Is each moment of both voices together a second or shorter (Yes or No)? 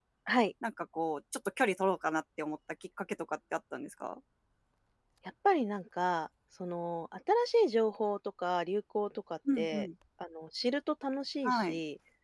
Yes